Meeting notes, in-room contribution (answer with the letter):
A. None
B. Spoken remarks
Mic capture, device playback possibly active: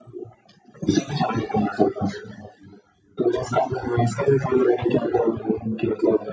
A